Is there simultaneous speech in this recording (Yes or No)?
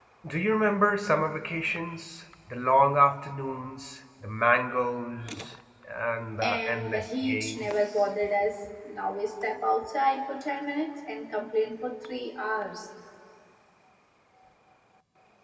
Yes